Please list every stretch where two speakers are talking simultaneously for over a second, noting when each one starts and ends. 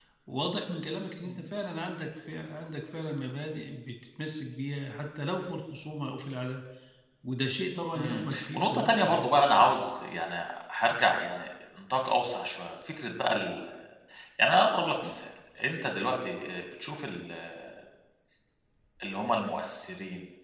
7.9-9.3

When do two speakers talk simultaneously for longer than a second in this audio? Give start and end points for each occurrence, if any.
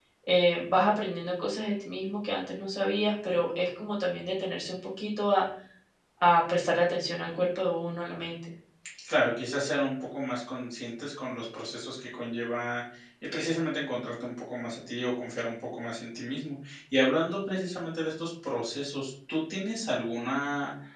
none

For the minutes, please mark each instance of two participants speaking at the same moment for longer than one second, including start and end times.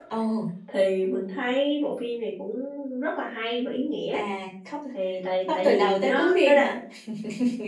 5.5-6.8

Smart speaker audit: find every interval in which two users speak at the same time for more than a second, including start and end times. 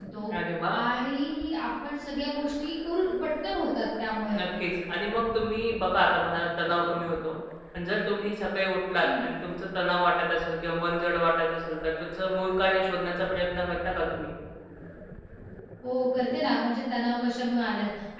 none

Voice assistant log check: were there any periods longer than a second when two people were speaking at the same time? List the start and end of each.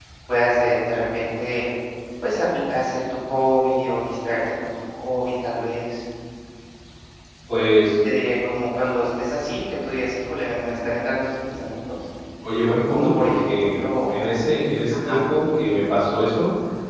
12.9-14.2

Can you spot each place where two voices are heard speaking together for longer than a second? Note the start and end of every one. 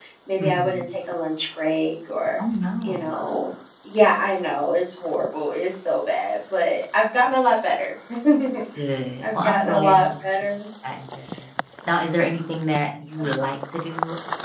9.2-10.5

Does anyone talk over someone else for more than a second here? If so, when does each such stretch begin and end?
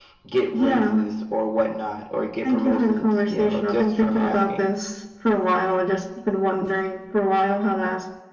2.4-4.6

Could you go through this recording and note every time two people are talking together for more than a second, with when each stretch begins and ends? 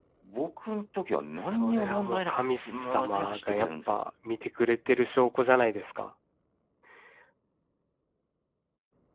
1.4-4.0

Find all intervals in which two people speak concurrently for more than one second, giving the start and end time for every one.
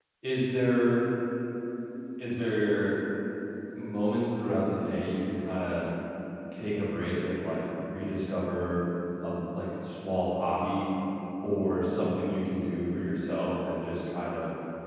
none

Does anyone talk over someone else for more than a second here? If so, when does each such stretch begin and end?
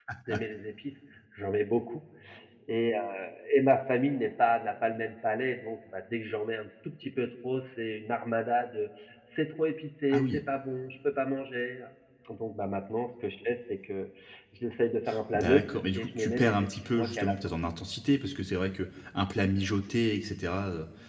15.3-17.4

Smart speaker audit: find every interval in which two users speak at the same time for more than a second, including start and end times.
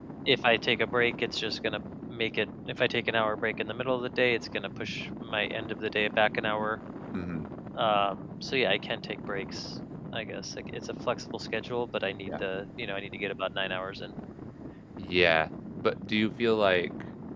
none

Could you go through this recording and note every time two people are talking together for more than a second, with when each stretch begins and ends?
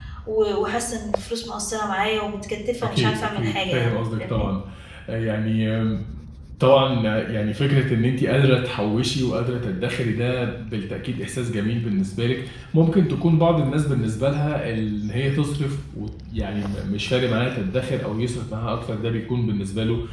2.8-4.5

